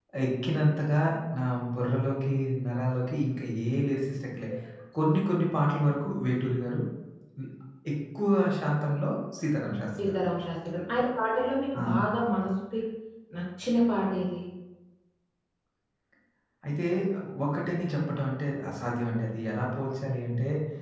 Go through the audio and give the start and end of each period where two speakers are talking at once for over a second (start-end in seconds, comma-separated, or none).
none